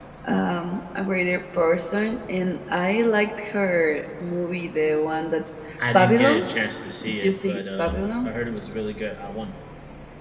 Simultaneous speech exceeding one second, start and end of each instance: 7.0-8.3

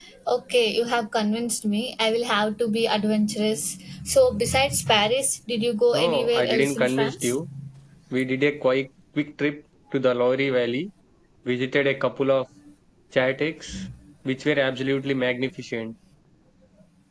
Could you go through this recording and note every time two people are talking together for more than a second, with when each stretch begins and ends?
5.9-7.4

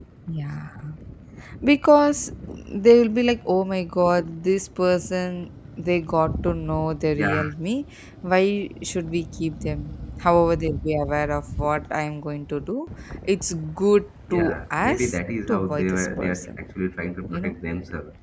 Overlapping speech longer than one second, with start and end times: 14.3-16.5

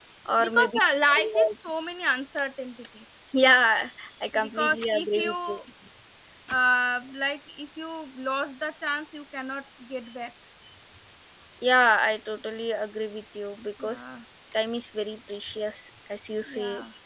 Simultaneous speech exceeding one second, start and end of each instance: 4.4-5.6

